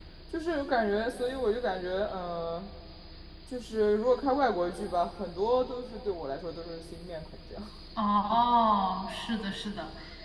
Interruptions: none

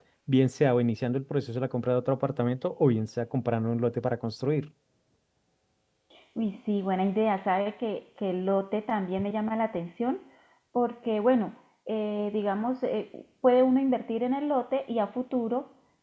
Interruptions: none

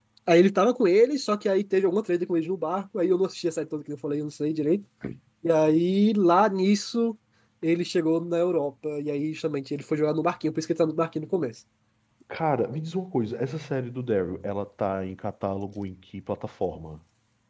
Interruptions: none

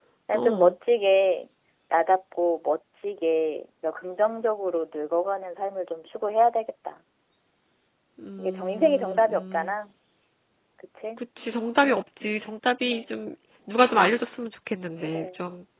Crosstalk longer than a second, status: present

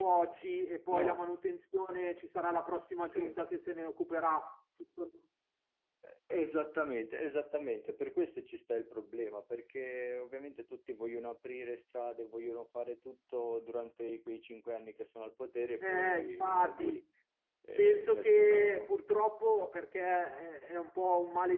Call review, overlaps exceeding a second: present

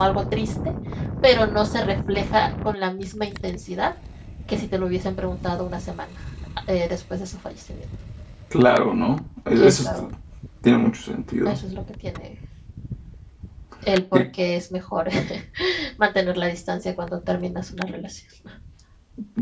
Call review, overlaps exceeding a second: none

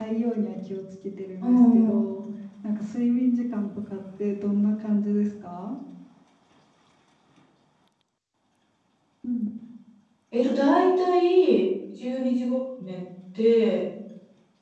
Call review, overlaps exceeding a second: none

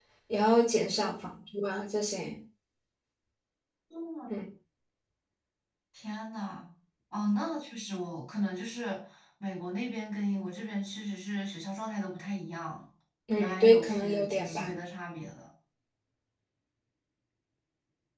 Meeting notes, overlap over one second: present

